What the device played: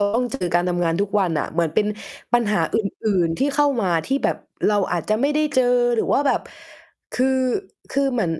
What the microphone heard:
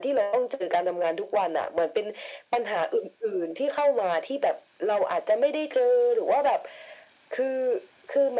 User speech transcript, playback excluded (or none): none